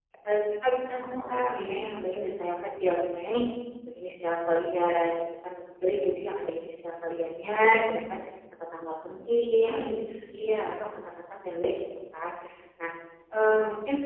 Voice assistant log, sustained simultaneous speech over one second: none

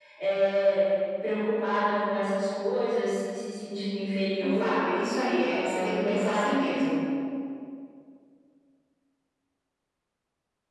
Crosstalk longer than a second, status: present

